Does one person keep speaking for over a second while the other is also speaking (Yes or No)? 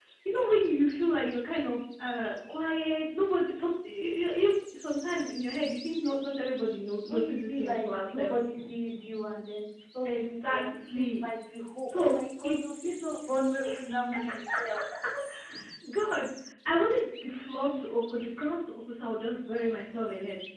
Yes